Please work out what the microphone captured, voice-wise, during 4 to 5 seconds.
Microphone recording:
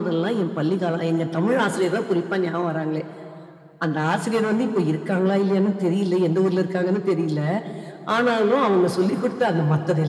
echo only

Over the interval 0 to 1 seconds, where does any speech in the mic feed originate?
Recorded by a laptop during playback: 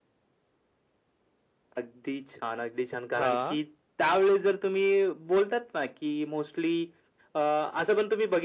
neither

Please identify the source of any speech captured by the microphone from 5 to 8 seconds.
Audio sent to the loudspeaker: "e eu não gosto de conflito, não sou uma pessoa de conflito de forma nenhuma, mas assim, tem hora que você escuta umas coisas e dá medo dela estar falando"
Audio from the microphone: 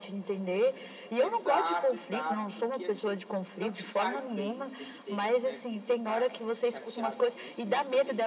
both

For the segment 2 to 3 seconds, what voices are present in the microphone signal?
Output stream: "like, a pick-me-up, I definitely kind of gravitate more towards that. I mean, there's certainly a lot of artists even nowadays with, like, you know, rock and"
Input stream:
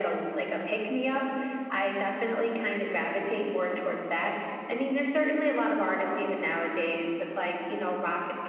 echo only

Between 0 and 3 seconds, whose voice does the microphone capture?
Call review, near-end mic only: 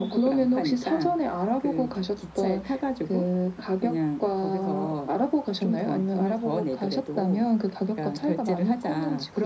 echo only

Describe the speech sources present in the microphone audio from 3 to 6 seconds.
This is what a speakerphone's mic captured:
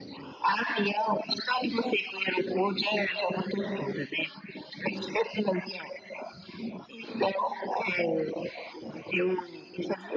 echo only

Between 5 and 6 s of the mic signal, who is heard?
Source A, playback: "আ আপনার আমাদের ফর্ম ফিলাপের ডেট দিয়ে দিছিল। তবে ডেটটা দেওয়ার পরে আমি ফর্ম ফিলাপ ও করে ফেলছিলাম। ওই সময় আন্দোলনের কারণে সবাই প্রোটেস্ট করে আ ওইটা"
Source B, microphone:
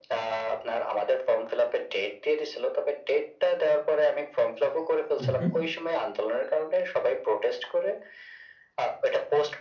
both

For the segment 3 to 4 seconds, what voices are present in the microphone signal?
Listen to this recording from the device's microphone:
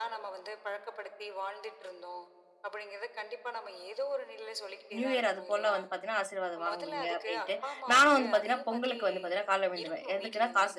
echo only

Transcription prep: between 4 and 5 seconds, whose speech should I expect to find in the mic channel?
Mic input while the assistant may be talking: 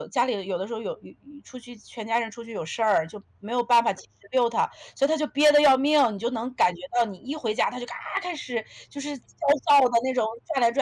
user only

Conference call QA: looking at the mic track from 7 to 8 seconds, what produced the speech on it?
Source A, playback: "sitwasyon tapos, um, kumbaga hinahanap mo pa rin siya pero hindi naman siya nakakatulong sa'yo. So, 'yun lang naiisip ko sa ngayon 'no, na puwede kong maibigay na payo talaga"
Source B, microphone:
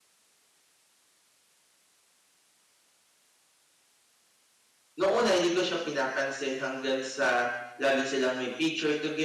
user only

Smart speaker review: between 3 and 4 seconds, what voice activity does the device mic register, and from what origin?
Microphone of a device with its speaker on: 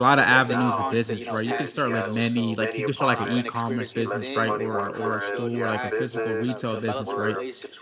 both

